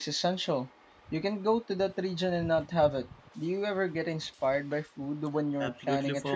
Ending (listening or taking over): taking over